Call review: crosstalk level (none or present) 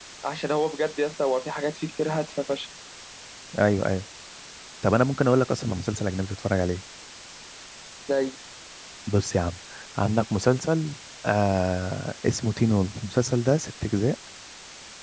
none